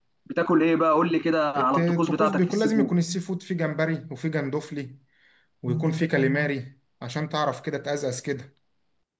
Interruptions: present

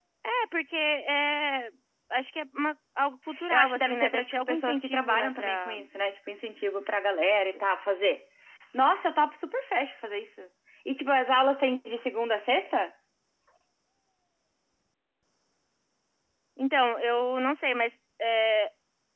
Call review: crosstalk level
present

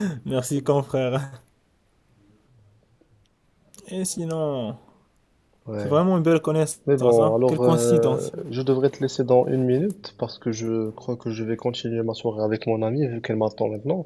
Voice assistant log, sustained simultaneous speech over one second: present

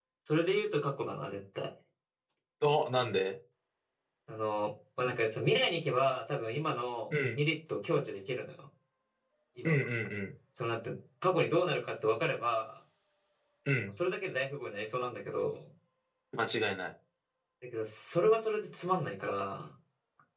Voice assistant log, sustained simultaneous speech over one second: none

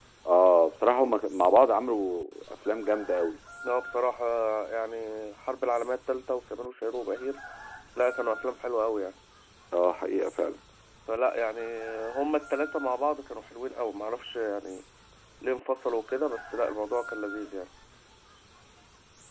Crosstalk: none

